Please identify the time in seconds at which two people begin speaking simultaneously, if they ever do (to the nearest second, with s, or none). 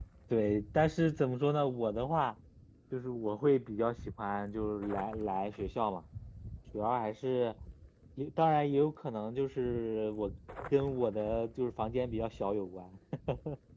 none